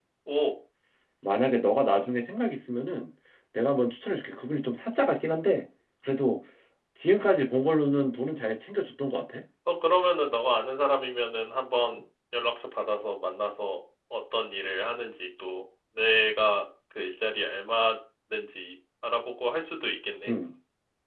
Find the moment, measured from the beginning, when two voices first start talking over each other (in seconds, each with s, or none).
none